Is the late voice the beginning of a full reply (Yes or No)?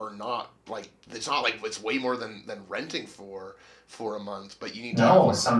Yes